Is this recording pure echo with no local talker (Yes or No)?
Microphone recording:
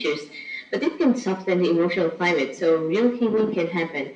Yes